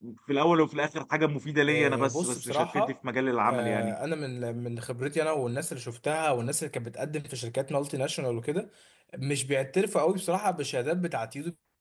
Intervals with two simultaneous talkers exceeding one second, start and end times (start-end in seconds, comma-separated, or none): 1.7-2.9